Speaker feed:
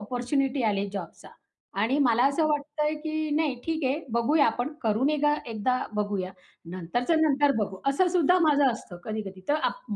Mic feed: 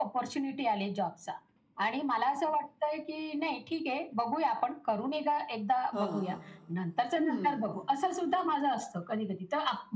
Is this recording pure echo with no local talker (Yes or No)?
No